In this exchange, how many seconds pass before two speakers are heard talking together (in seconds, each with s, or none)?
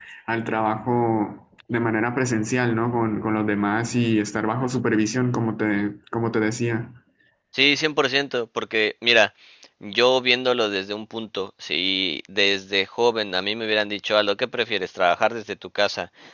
none